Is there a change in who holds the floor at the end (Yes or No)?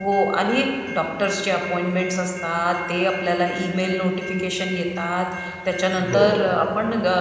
No